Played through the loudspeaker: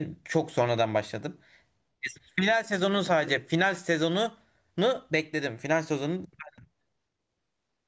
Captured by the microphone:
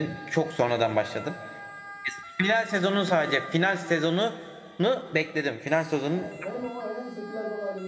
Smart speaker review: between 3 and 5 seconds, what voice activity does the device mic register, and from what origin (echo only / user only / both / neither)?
echo only